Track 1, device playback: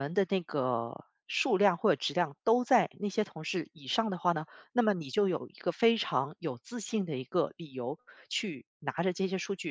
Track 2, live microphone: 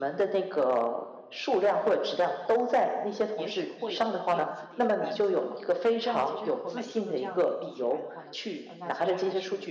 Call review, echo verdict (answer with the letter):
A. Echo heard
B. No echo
A